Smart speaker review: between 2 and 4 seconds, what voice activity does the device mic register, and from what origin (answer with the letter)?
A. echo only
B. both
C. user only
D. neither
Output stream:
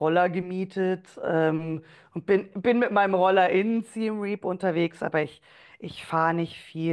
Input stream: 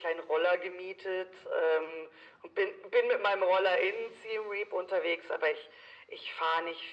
A